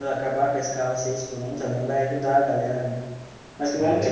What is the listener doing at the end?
listening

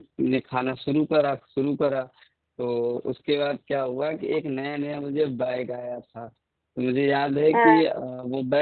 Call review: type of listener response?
listening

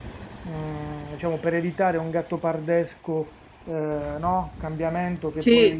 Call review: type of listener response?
listening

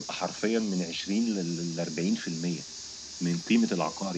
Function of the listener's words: listening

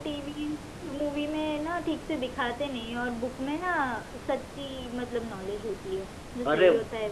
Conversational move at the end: taking over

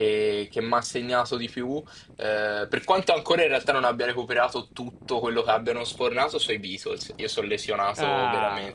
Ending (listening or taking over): taking over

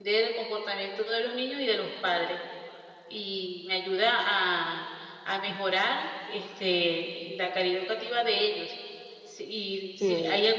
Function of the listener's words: listening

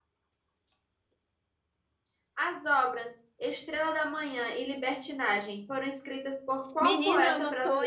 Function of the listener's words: taking over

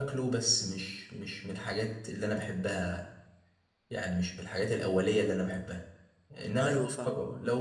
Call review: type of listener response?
listening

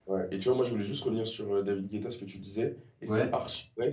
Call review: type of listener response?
listening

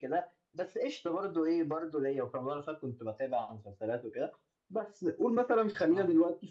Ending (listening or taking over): listening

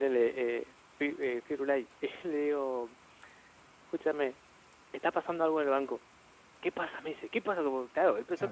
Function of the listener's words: taking over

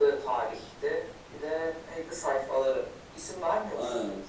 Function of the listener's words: taking over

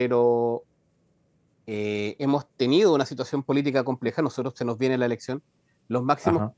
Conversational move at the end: listening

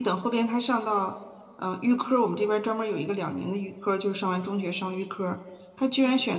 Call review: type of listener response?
listening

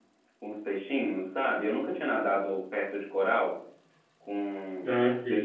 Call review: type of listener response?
taking over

